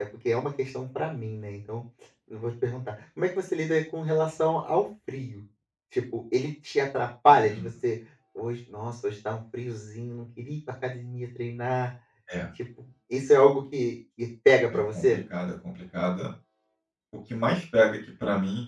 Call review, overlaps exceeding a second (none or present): none